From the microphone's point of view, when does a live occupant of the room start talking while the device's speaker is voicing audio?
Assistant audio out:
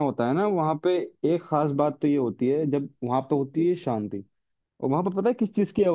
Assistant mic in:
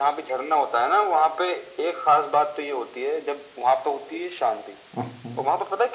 5.0 s

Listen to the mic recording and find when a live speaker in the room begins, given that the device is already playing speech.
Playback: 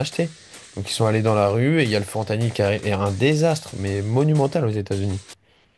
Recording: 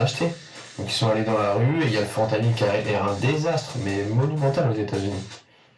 none

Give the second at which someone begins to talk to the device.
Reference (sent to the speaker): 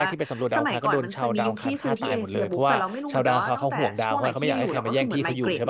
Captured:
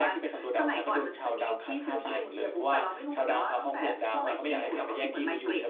none

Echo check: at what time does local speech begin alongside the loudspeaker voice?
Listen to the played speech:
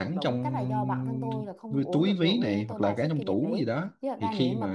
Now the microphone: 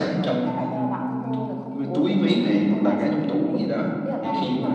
none

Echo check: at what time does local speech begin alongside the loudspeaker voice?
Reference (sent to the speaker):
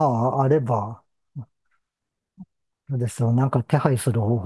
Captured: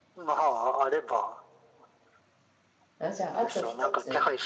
3.0 s

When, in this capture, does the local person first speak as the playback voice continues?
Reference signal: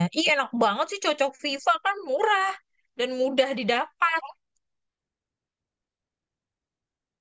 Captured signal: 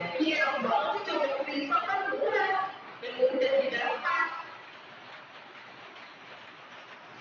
none

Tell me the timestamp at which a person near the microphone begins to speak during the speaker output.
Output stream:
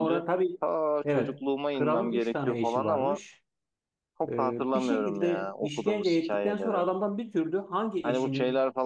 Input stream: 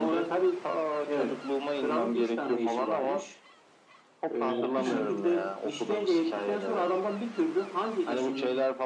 4.5 s

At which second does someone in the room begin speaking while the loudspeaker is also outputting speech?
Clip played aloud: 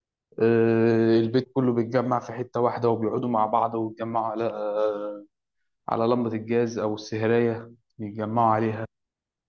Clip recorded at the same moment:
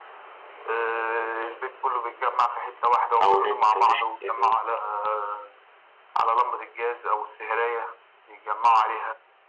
3.2 s

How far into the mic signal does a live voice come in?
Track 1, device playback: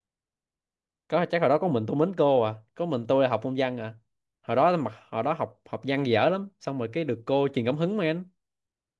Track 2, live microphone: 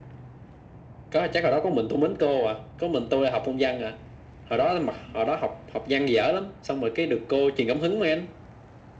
none

